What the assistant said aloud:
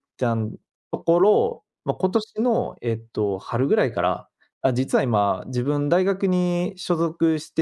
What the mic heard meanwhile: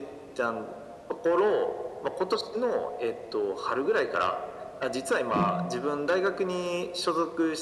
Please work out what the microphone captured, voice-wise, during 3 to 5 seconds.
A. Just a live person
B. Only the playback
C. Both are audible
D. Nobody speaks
B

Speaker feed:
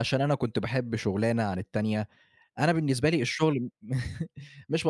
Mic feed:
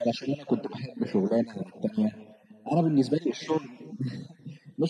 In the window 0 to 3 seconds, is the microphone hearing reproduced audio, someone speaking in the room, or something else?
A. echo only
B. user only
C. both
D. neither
A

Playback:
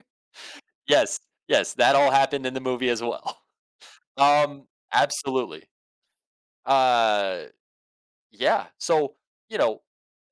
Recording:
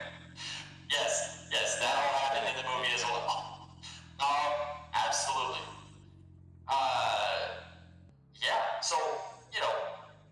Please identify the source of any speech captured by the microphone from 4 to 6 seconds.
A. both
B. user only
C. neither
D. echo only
D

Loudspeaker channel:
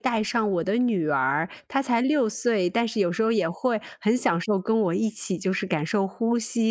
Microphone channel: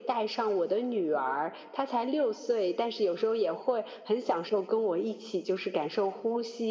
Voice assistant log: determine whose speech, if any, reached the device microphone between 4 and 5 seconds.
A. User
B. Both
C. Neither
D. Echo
D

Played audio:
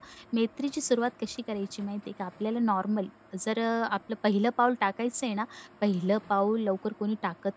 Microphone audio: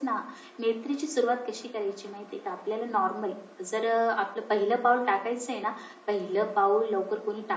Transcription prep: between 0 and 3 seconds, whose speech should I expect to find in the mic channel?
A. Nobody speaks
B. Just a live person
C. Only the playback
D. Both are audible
C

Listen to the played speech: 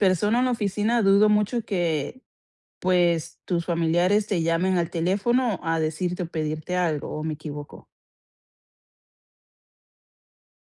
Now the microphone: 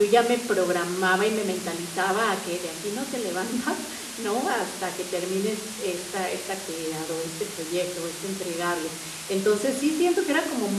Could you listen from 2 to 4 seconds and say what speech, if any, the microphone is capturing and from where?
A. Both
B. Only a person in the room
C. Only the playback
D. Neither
B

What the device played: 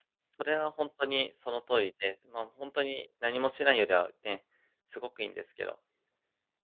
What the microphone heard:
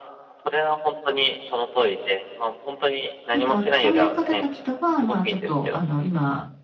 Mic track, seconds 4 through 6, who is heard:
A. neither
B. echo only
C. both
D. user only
C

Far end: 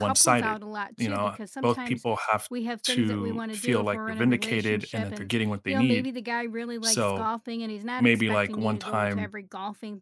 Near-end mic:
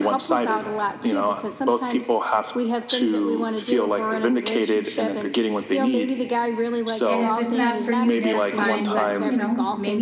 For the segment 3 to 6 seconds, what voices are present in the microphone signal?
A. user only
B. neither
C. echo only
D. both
C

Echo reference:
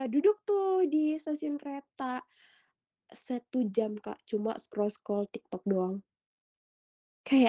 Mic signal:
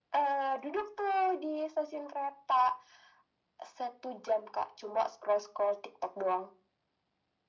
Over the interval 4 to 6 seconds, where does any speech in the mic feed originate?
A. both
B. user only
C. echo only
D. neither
C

